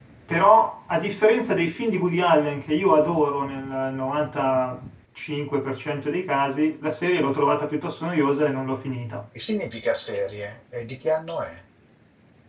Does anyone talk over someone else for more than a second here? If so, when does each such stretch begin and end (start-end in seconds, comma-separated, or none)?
none